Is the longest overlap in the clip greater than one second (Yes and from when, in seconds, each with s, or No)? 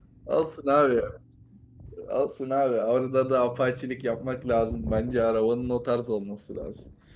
No